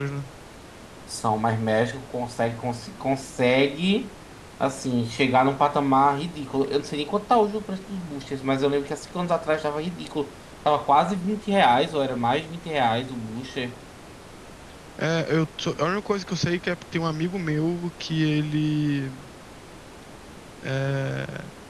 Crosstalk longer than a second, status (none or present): none